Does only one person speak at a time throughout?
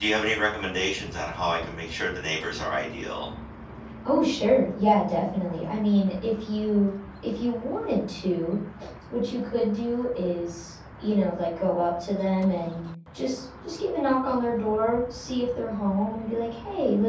Yes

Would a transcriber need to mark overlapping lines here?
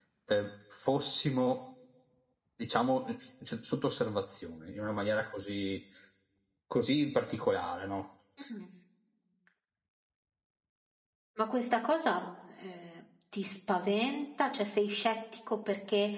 No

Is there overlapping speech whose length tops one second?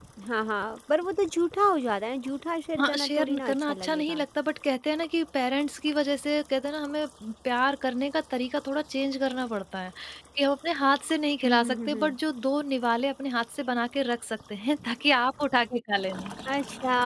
Yes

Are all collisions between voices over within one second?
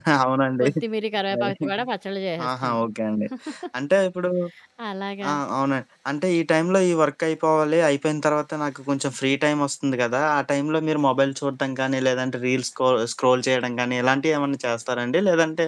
Yes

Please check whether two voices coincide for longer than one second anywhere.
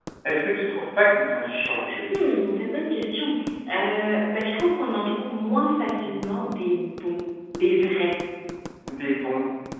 No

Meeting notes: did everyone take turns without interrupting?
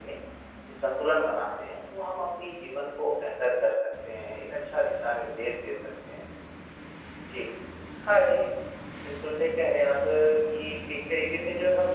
Yes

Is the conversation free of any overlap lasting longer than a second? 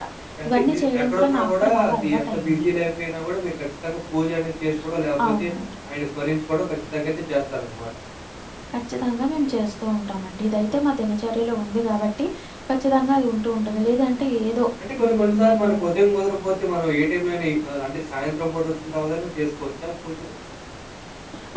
No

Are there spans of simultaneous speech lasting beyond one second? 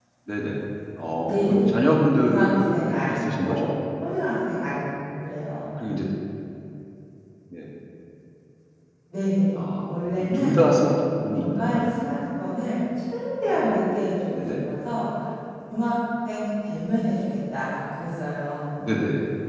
Yes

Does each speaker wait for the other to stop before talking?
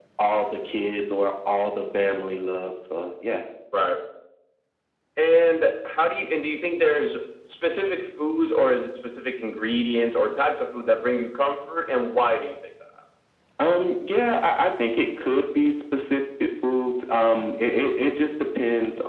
Yes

